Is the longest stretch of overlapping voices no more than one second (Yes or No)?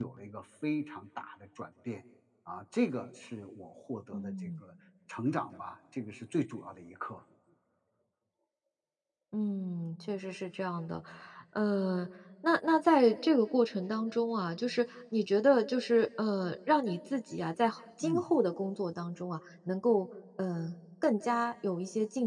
Yes